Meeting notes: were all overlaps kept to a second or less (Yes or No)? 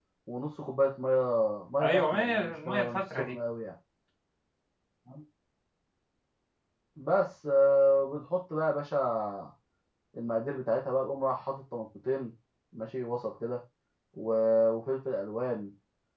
No